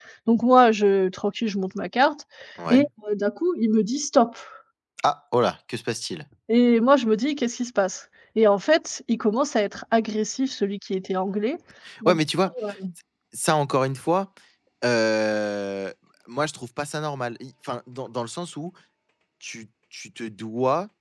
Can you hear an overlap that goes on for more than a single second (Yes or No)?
No